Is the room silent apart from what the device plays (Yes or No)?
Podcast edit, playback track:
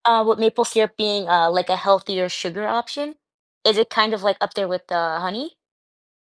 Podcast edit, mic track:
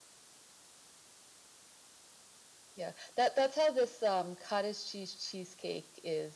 No